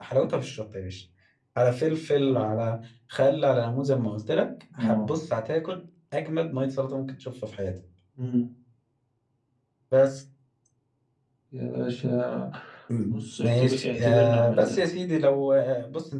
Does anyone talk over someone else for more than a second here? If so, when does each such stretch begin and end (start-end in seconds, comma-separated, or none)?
13.1-14.8